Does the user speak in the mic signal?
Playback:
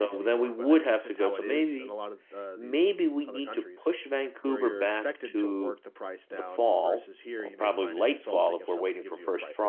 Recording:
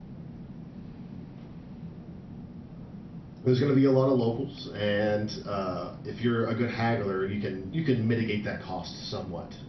Yes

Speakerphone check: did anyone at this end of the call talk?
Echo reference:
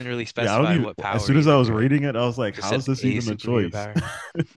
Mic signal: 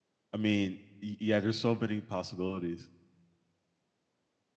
Yes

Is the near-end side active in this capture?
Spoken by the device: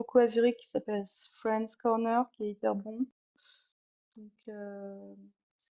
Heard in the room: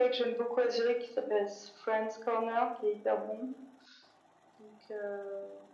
No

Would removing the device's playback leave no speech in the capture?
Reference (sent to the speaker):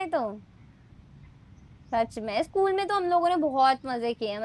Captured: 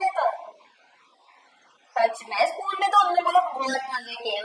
Yes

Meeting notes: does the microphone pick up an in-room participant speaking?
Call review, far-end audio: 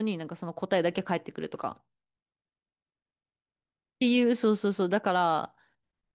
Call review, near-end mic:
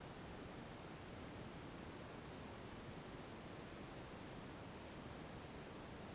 No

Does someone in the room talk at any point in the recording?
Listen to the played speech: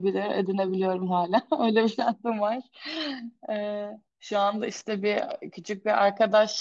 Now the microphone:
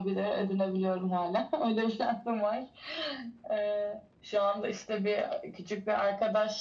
No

